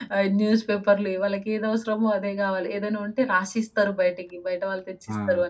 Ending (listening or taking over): listening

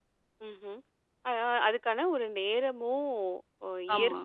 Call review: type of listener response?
listening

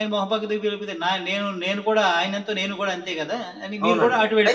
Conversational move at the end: taking over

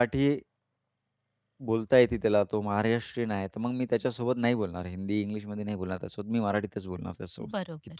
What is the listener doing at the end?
listening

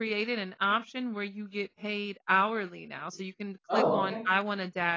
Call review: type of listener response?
listening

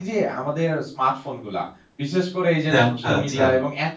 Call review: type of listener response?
listening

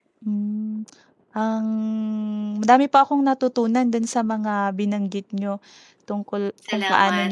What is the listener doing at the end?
listening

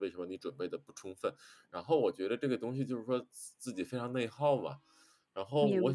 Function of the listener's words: listening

